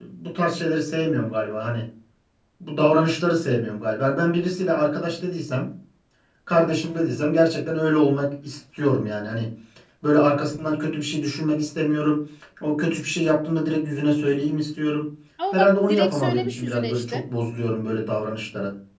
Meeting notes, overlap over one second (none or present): present